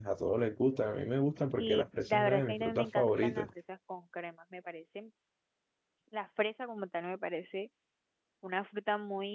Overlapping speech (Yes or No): Yes